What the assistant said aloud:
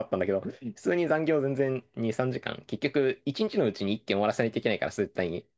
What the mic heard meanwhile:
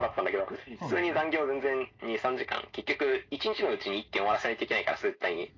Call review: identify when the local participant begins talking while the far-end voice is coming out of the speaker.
0.7 s

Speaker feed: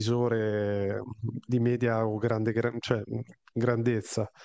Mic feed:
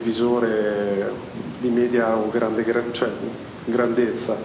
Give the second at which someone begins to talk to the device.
none

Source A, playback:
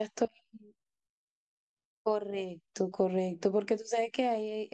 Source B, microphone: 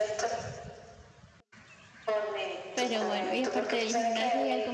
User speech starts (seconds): 2.7 s

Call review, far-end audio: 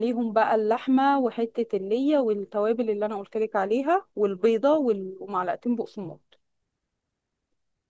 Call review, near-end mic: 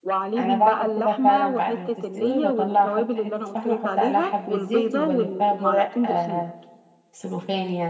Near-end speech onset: 0.4 s

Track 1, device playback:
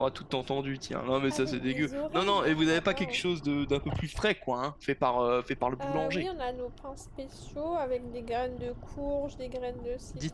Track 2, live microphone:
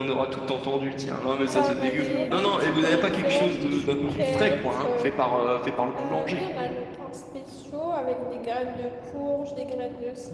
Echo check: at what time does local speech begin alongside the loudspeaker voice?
1.5 s

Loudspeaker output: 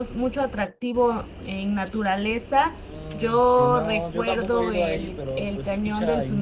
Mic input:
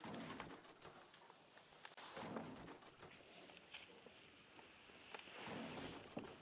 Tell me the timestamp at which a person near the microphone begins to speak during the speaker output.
none

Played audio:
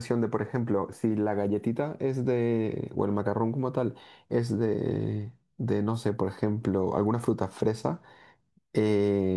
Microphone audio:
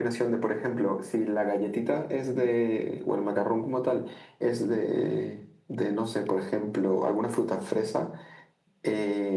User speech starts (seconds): none

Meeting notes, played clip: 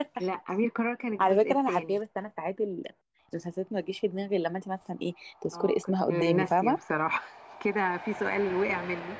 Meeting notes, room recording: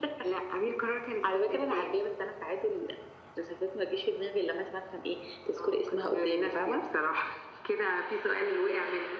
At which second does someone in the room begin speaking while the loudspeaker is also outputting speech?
none

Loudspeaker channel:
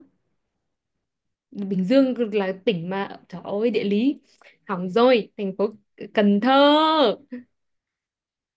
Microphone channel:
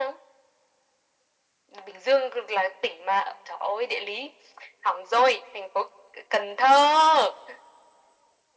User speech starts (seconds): none

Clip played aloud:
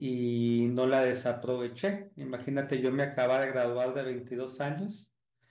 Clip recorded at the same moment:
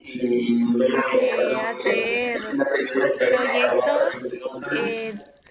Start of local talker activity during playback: 1.1 s

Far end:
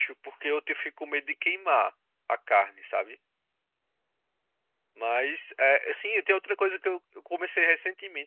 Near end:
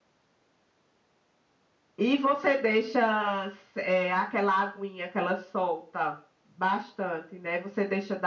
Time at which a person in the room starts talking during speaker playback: 2.0 s

